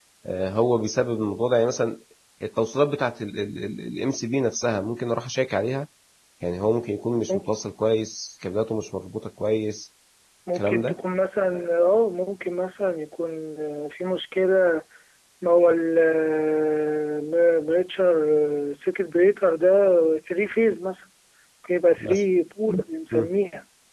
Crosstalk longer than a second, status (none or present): none